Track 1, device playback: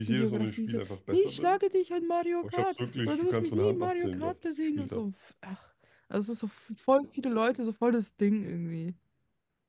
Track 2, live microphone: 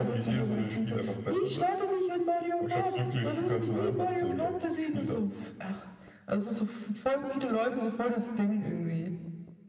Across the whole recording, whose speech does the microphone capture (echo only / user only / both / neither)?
echo only